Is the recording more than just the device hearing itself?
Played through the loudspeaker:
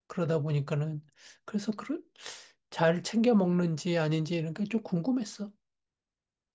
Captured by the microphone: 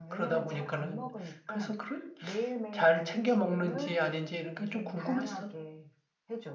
Yes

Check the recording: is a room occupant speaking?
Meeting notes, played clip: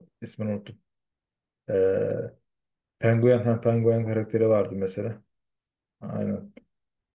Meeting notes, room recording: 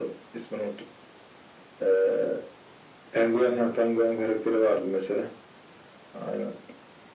No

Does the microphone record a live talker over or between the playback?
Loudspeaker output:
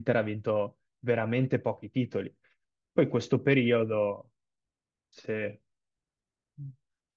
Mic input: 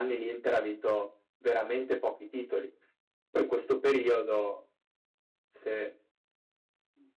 No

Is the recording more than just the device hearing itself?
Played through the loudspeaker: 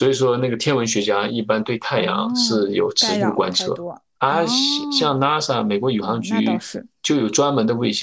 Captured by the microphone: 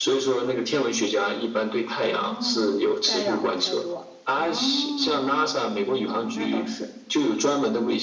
No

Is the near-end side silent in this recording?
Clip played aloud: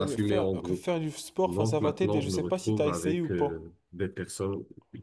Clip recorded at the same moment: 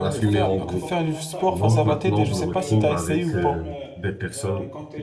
No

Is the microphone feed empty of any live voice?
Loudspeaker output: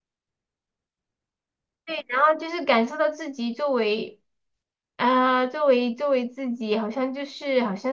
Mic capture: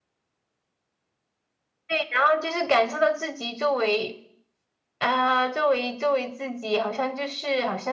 Yes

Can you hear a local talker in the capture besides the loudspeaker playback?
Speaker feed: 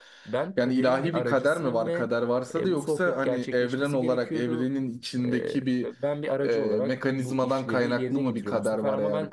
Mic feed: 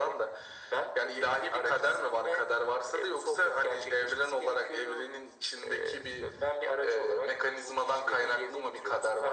No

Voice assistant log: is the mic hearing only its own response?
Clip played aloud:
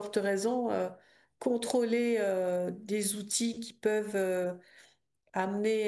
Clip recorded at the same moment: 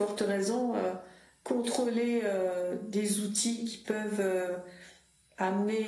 Yes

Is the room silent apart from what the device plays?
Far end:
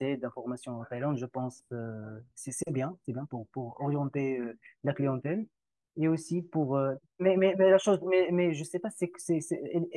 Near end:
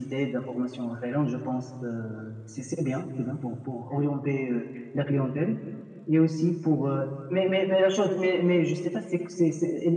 Yes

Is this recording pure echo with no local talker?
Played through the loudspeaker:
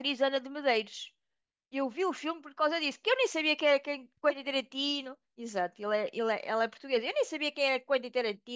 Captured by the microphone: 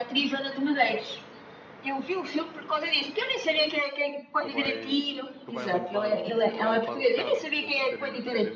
No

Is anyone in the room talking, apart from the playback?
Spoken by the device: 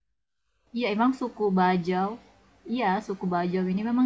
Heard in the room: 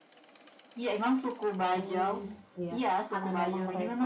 Yes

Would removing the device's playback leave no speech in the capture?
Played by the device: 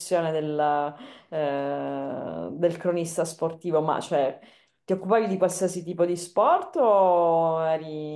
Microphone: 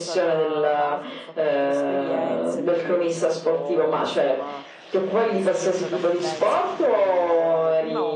No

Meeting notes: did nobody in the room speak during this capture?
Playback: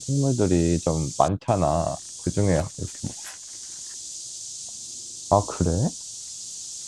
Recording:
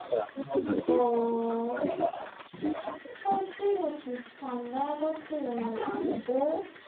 No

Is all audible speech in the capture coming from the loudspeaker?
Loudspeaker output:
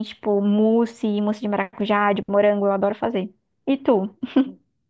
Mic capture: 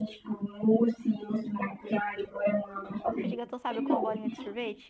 No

